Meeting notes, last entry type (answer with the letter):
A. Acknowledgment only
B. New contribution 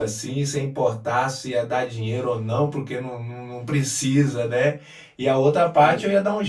A